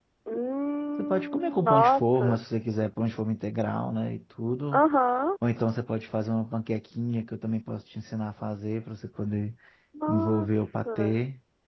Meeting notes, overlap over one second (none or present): present